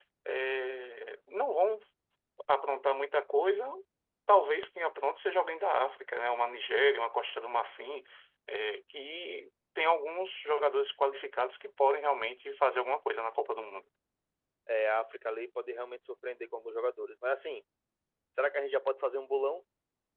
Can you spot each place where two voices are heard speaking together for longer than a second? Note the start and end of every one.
none

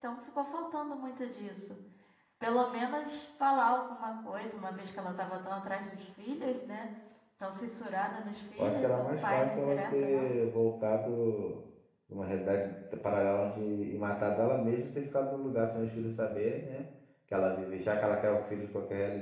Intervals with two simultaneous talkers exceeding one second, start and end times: 8.6-10.3

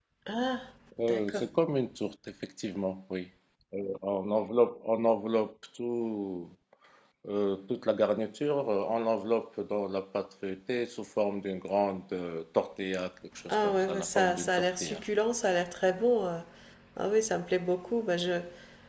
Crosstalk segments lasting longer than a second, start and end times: 13.5-15.0

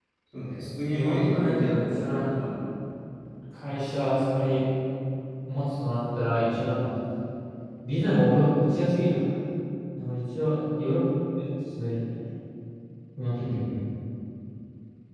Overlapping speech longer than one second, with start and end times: 0.9-2.4

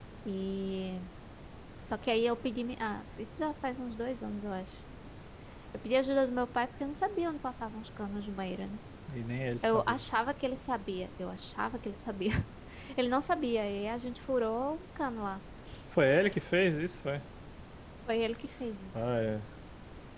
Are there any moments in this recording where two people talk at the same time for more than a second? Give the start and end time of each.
none

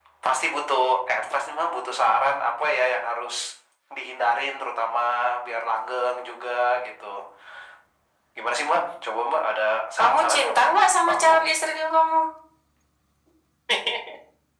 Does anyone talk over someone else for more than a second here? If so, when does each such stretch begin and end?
10.0-11.3

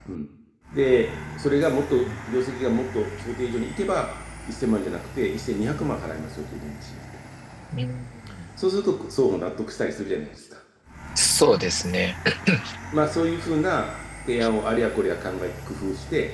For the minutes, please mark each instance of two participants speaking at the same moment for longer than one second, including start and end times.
none

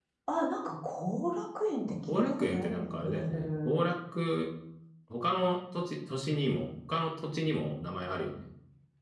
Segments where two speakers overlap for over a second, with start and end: 1.9-3.8

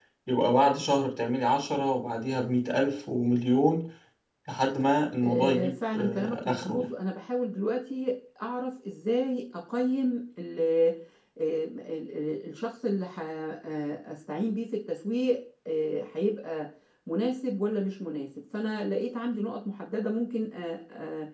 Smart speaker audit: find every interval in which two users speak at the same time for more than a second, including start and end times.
5.2-6.9

